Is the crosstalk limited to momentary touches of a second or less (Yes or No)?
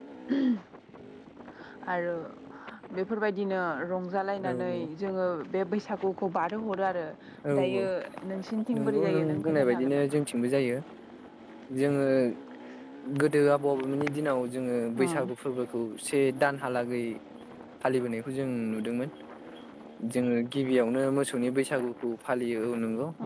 No